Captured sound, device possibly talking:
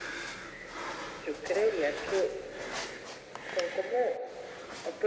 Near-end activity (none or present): none